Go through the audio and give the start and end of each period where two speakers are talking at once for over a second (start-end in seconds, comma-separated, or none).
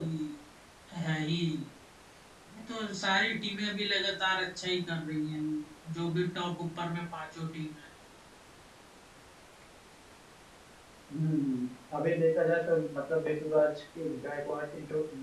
none